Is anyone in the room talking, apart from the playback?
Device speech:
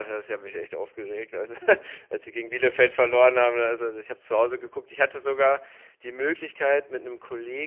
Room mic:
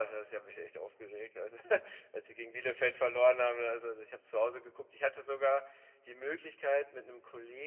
No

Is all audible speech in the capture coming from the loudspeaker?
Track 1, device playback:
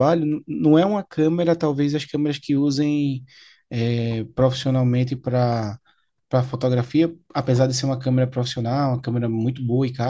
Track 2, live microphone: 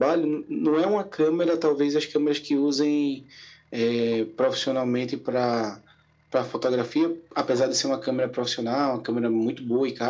Yes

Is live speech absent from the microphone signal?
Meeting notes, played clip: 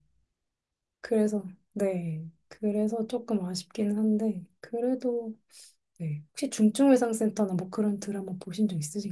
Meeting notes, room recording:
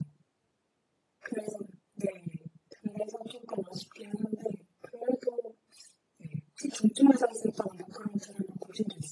Yes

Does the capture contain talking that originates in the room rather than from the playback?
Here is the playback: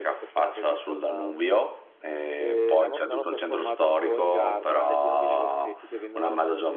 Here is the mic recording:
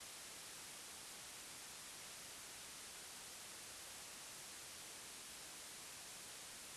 No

